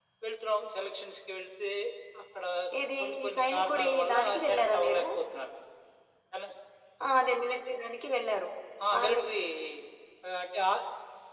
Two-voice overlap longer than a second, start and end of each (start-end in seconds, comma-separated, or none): 3.0-5.0